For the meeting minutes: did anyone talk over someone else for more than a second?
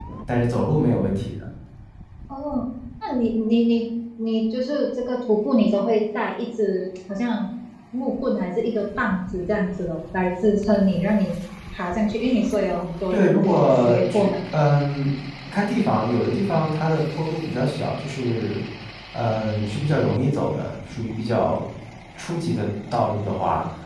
Yes, from 13.1 s

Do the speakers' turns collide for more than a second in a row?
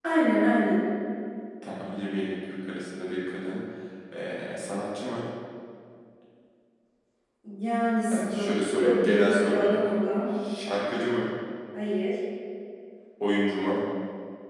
Yes, from 8.1 s

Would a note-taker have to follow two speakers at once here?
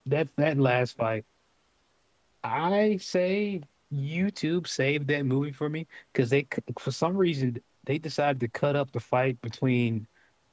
No

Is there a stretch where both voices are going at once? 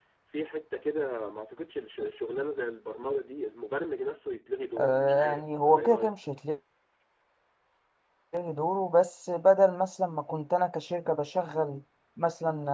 Yes, from 4.8 s

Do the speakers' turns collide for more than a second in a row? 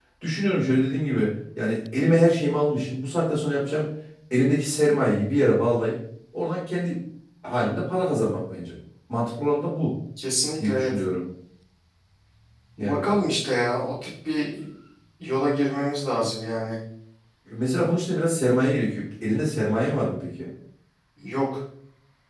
No

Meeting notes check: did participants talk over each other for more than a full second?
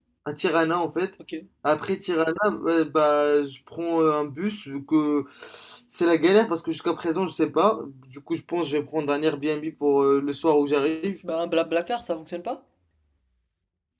No

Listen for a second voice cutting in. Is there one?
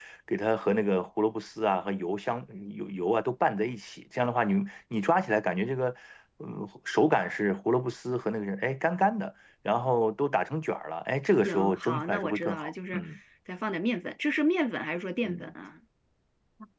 Yes, from 11.4 s

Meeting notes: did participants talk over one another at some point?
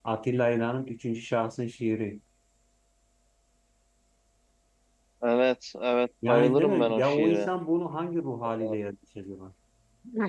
Yes, from 6.2 s

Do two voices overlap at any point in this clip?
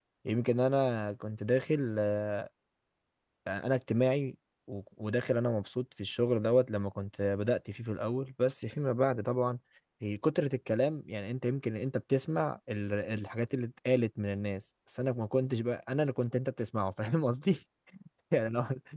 No

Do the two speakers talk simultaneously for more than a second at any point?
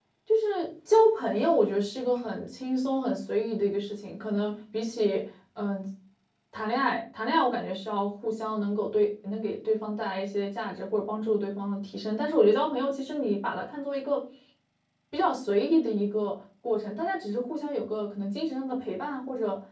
No

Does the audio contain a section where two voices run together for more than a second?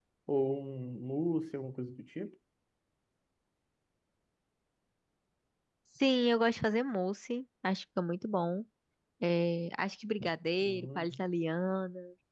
No

